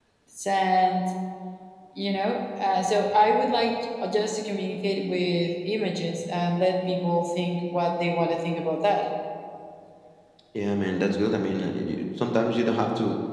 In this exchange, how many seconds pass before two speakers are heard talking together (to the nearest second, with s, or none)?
none